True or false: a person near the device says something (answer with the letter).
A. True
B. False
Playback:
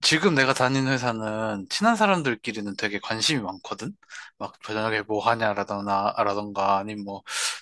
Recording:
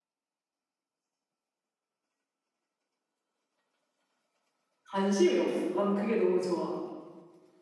A